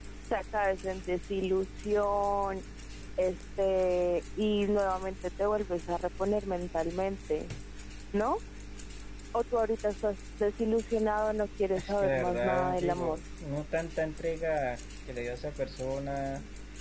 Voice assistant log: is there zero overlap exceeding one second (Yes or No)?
No